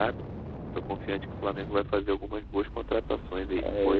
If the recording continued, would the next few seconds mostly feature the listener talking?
Yes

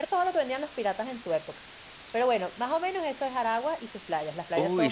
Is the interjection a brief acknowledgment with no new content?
No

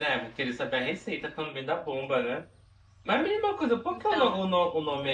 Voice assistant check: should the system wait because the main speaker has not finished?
Yes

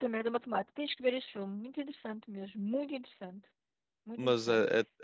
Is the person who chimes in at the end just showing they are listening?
No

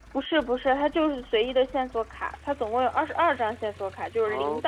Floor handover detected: No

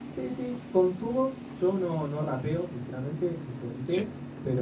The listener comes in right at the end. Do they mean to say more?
No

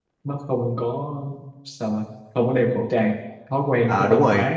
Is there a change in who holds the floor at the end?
Yes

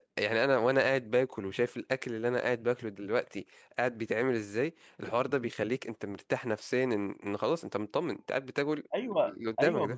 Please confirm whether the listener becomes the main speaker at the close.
Yes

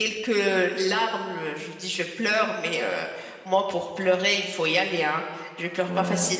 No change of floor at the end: Yes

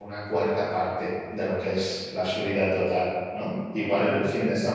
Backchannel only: Yes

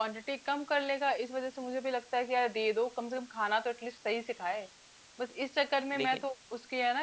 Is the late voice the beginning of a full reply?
No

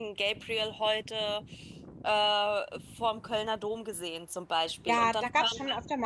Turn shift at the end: Yes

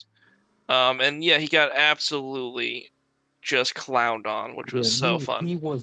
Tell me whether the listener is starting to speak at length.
Yes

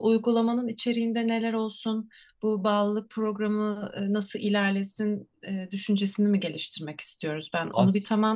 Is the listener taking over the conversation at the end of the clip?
No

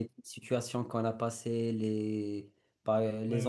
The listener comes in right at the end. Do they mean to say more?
Yes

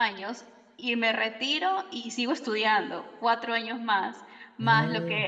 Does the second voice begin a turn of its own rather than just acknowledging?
No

